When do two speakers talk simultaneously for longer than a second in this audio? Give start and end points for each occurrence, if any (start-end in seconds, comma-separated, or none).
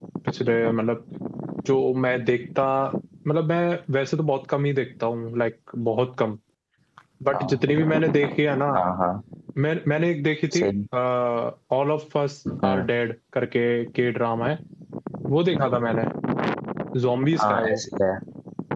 none